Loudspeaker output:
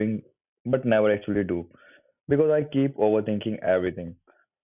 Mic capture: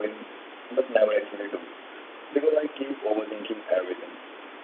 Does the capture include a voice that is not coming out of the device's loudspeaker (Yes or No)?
No